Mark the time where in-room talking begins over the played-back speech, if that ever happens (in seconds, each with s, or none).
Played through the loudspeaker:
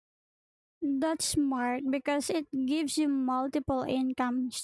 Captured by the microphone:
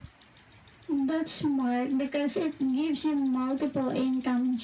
none